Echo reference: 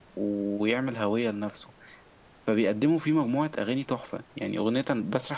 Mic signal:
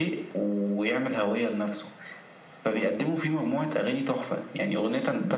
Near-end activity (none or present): none